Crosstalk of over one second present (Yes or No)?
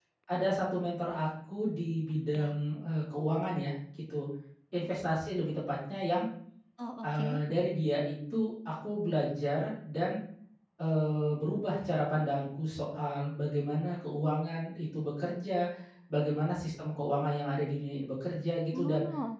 No